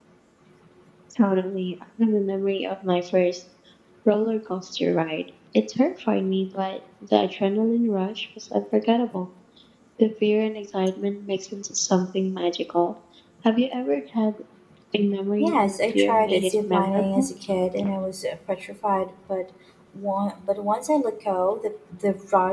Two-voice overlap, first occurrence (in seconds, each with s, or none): 15.4 s